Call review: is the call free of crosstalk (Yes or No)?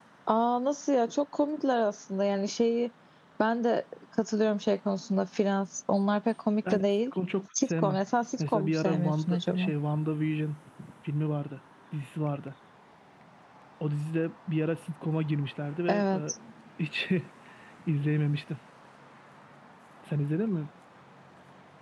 No